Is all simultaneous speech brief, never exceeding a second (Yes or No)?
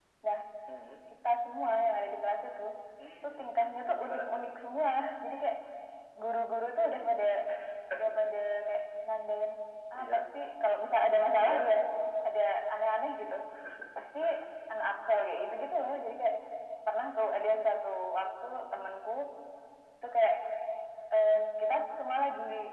No